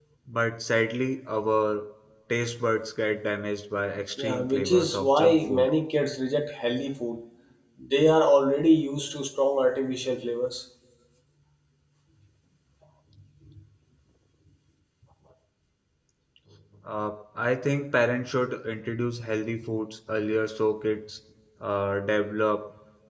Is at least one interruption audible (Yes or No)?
Yes